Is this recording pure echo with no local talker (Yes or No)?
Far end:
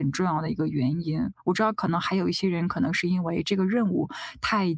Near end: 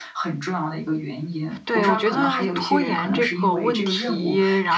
No